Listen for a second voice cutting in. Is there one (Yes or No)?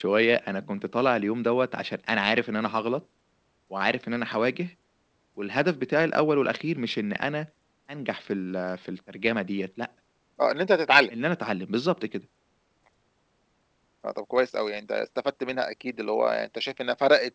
No